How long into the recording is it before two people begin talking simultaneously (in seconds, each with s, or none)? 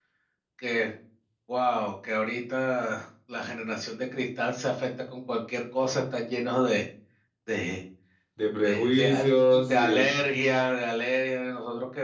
8.6 s